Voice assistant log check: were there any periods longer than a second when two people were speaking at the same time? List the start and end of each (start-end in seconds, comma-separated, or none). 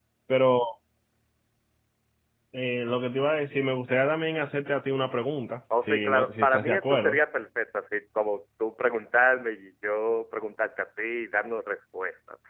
5.9-7.2